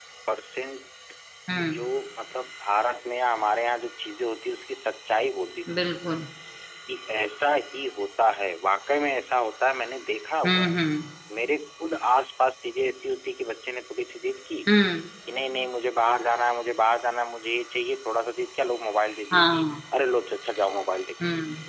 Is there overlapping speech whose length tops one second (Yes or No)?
No